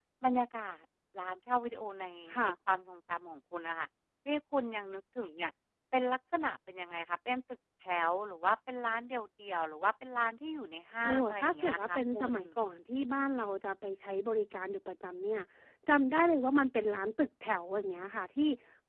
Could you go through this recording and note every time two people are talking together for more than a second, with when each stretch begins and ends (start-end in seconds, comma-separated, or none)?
11.0-12.3